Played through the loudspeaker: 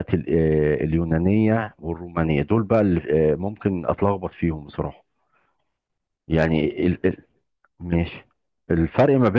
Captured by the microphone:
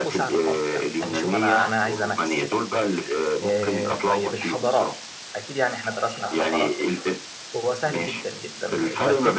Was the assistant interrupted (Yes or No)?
Yes